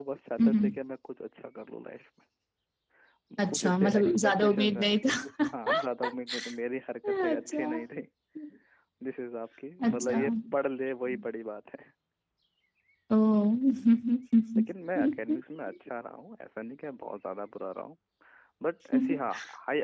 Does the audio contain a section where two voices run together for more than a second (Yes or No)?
Yes